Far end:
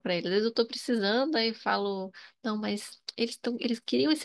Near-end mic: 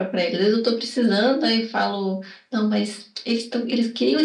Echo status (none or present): present